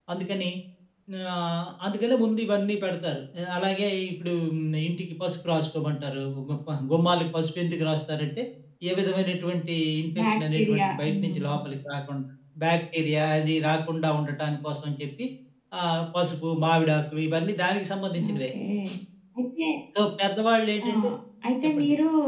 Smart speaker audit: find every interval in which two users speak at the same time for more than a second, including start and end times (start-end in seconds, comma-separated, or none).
10.2-11.4